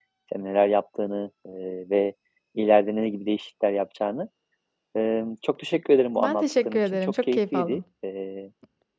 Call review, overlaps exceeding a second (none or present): present